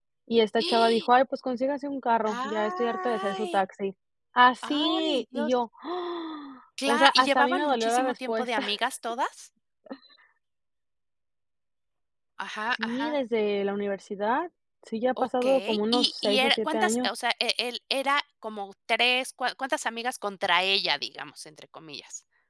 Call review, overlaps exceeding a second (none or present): present